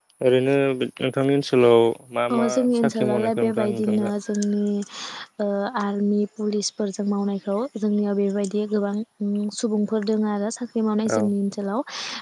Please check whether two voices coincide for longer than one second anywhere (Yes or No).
Yes